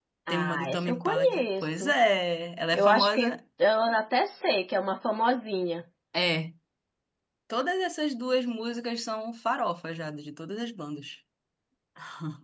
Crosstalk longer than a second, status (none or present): present